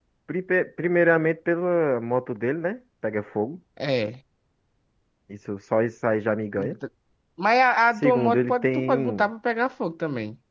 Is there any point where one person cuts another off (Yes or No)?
Yes